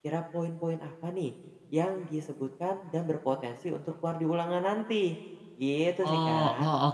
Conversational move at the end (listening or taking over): taking over